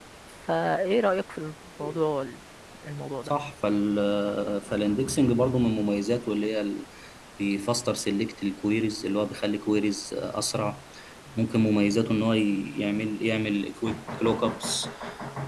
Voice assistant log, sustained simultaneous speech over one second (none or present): none